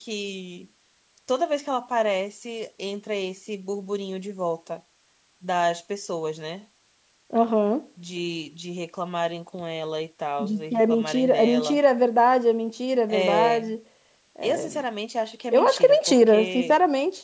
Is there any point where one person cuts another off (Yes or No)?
Yes